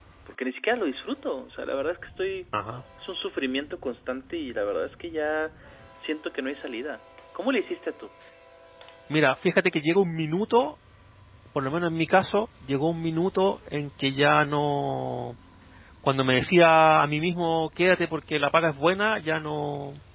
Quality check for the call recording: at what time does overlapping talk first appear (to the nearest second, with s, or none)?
none